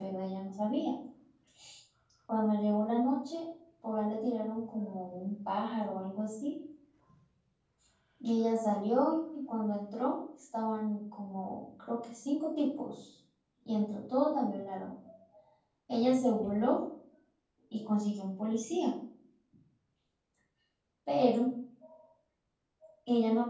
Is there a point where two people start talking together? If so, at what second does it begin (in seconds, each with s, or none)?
none